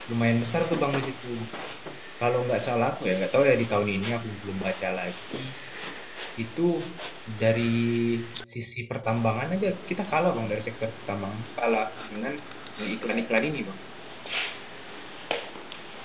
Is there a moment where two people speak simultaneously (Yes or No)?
No